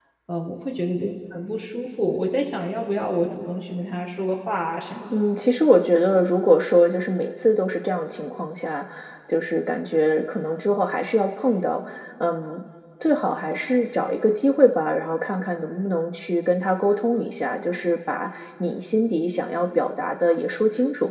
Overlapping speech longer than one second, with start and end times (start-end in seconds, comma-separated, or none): none